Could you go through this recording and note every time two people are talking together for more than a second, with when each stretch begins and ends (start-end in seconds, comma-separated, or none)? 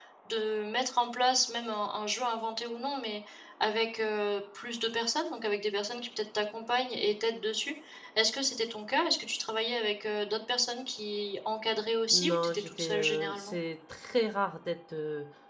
12.1-13.6